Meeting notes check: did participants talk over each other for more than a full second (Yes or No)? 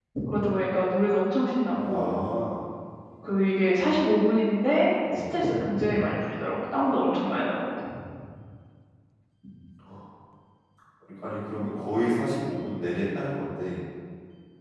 No